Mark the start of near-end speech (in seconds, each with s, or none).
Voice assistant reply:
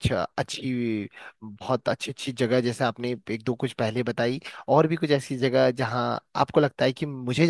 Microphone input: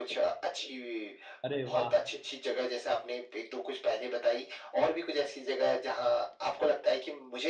1.4 s